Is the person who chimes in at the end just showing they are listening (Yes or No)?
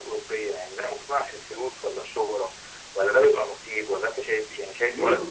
Yes